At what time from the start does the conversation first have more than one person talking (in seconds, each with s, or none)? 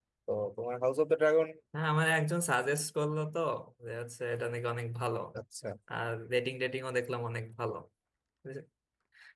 none